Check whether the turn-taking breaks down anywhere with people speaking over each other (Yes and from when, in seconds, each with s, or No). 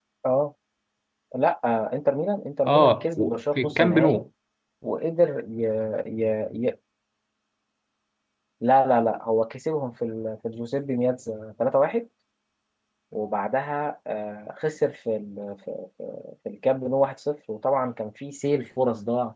Yes, from 2.6 s